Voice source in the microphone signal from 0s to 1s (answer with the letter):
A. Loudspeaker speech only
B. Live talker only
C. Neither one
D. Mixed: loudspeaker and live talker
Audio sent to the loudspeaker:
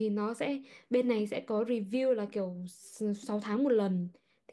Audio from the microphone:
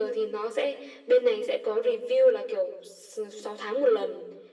A